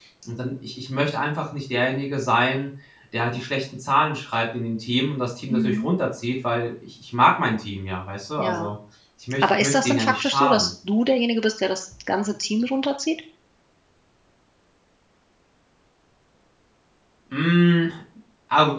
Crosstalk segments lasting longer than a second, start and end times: 9.4-10.7

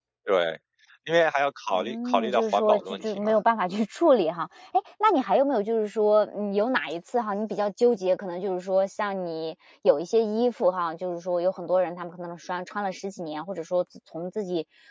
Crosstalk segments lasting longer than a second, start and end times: 1.7-3.4

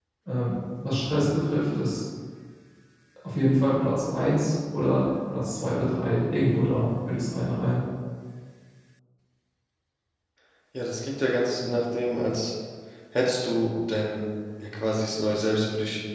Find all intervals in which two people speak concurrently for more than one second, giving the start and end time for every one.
none

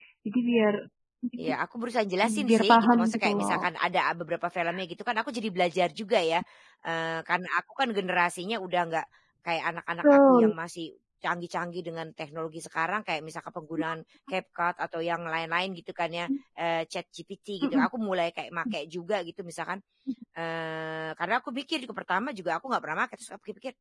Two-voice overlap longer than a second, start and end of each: 2.2-3.7

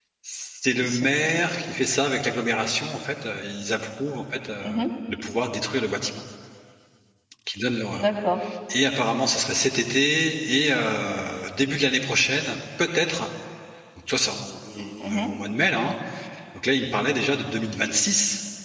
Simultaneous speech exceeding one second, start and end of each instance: none

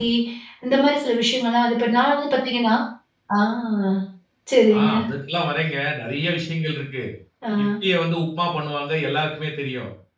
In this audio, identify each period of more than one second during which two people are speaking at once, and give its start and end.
none

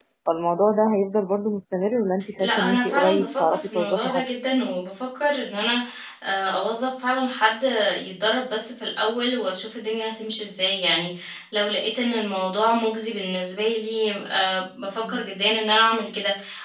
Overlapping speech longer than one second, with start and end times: 2.4-4.2

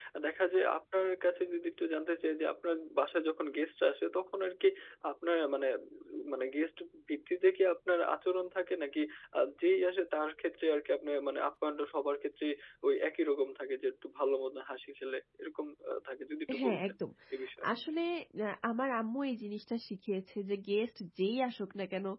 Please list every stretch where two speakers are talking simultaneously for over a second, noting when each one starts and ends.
none

